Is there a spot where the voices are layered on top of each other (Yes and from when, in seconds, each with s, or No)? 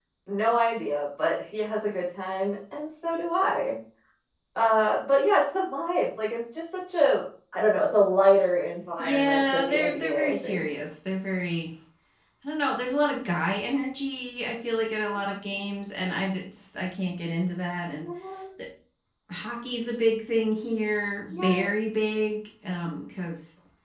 Yes, from 9.0 s